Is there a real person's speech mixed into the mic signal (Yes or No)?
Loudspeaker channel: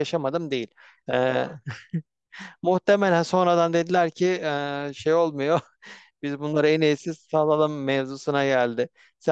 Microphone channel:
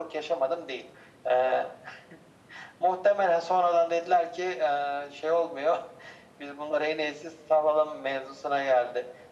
No